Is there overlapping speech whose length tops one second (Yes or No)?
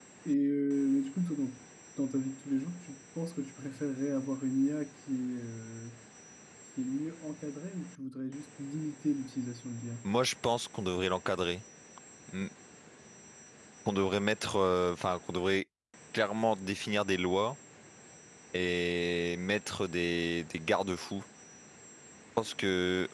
No